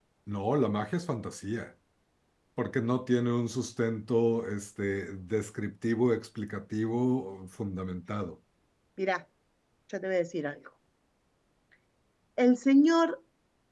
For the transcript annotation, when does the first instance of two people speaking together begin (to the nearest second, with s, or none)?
none